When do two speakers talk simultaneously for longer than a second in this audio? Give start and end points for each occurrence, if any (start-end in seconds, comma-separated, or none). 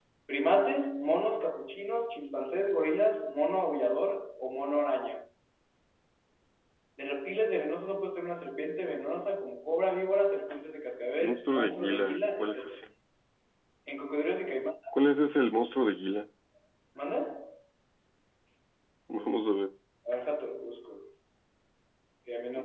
11.2-12.8